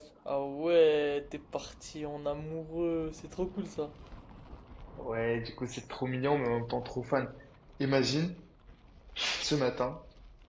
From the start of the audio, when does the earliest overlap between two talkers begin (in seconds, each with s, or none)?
none